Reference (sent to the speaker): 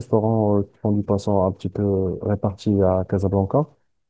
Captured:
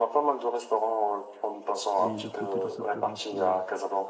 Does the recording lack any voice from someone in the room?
No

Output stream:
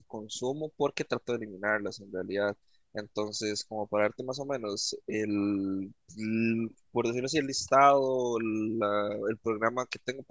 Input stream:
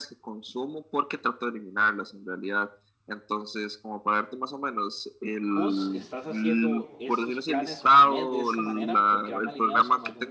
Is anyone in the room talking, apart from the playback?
Yes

